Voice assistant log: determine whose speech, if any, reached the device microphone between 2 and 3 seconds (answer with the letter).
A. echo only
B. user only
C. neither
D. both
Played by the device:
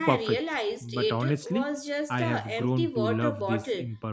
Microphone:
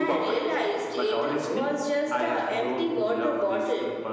A